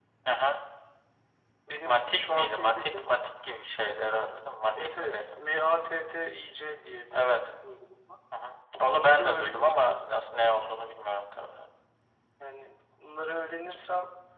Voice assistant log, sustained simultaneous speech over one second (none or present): present